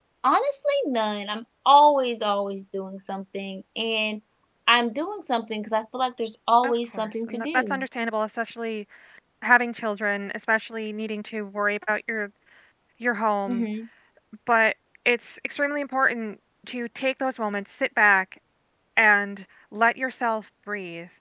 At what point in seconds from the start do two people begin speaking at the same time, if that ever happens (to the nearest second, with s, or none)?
7 s